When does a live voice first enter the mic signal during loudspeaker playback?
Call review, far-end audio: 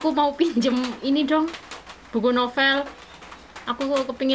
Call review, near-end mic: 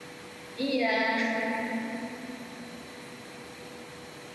0.6 s

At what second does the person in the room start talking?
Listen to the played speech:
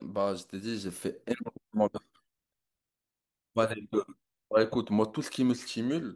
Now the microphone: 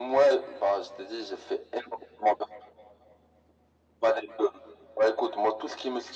none

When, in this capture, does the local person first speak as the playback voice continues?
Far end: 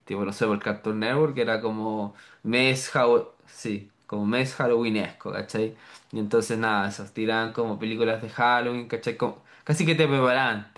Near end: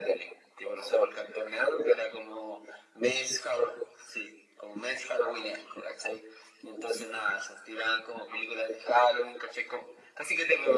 none

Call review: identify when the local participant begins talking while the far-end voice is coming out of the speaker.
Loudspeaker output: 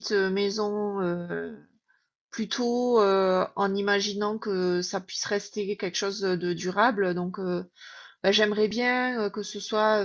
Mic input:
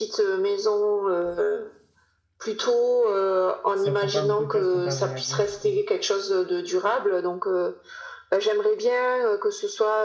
3.7 s

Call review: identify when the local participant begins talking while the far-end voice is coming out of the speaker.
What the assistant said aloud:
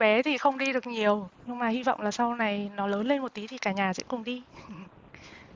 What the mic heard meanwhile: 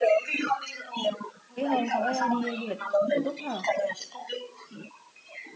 1.6 s

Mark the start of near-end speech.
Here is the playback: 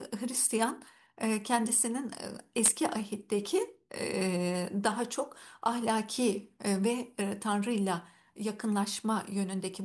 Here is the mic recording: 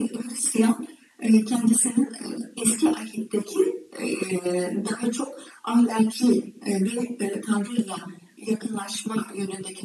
none

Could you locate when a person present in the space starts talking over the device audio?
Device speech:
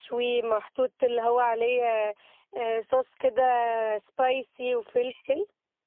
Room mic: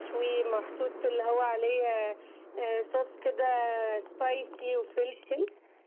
none

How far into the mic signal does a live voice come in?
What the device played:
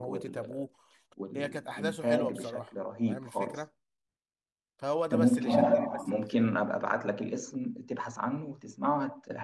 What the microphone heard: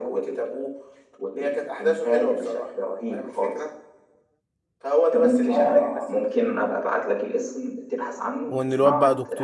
8.5 s

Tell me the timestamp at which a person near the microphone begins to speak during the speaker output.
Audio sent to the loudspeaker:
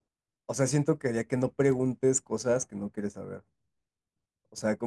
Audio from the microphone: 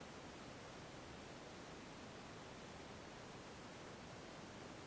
none

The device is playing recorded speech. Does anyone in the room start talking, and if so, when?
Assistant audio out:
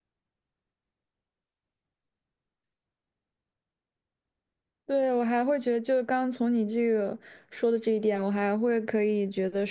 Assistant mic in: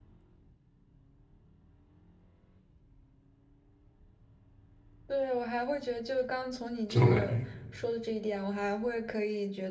6.9 s

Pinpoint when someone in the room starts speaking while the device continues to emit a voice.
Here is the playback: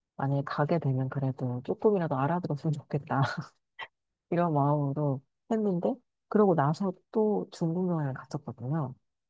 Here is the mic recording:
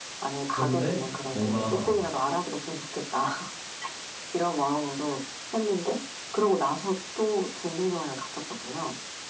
0.5 s

